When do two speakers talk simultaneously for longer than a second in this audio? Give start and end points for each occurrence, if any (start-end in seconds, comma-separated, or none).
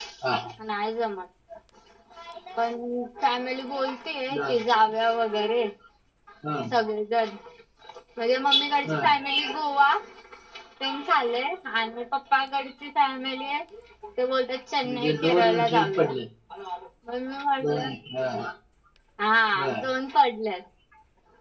14.8-16.1